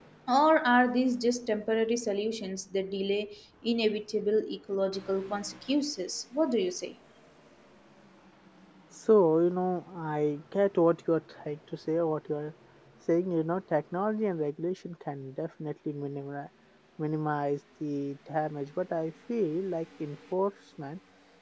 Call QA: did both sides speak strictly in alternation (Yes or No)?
Yes